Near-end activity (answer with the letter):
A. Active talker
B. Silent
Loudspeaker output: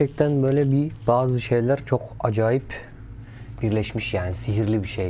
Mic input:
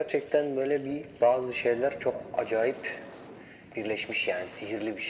B